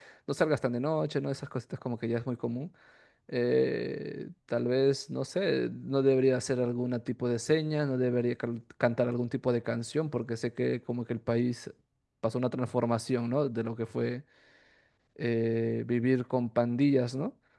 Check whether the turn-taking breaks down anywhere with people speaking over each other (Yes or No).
No